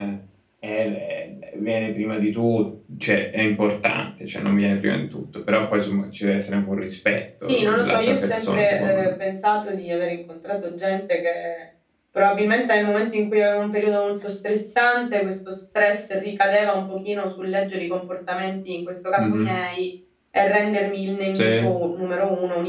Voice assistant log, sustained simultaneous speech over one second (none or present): present